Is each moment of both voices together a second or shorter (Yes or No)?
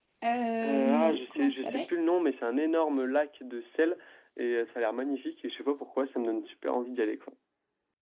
No